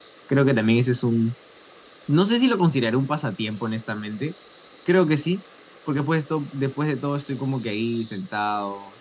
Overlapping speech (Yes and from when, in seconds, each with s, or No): No